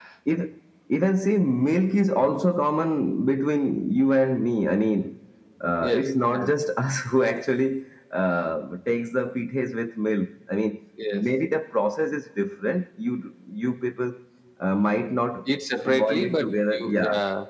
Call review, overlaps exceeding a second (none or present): present